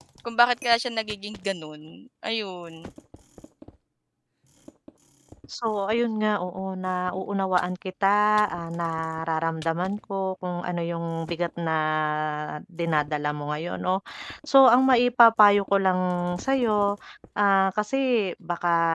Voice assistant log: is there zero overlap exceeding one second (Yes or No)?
Yes